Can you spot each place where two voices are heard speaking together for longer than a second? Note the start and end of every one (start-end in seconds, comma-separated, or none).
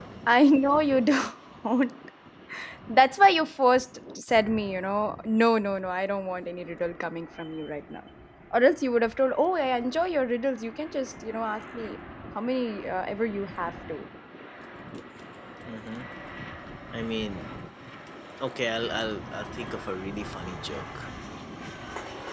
none